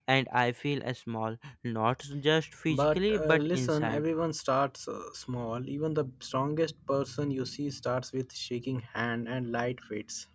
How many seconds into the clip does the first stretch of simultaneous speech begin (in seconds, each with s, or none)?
2.7 s